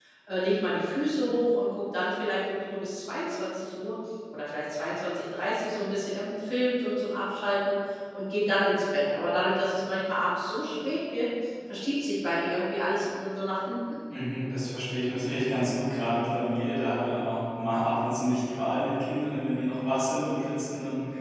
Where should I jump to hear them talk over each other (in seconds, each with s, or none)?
none